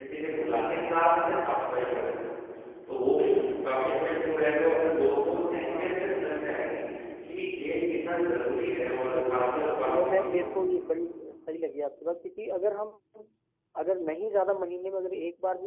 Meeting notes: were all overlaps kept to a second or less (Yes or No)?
No